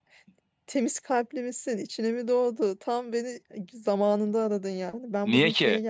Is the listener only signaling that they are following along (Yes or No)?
Yes